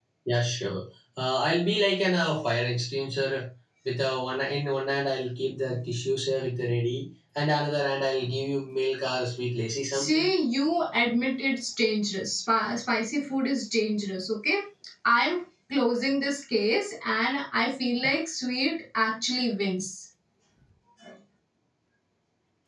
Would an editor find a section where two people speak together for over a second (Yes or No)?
No